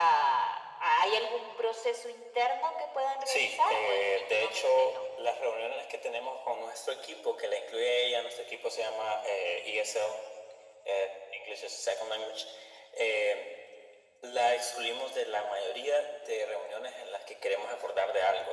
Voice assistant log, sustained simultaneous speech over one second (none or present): present